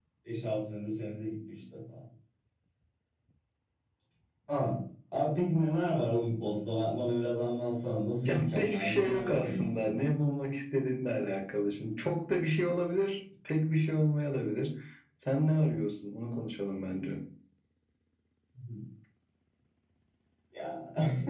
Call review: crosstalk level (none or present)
present